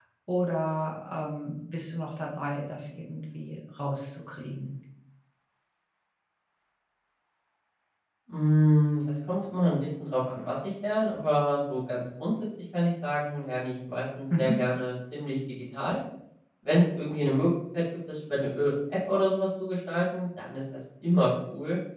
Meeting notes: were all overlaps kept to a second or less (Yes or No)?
Yes